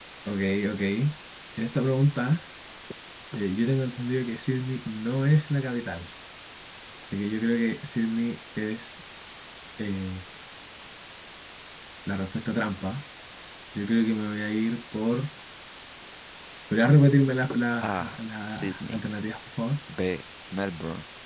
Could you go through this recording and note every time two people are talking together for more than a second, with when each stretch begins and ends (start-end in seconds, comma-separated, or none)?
17.8-19.0